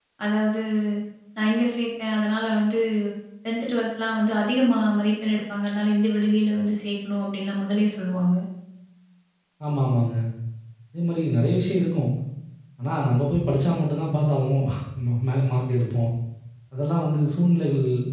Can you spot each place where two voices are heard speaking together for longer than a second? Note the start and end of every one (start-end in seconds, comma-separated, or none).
none